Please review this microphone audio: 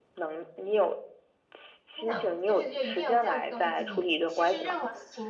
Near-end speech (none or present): present